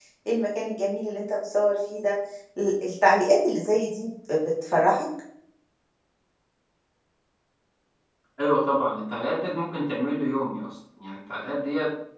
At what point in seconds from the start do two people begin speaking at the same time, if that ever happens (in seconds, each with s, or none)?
none